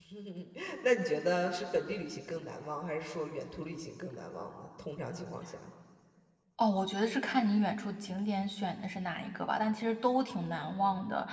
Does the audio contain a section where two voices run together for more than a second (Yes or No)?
No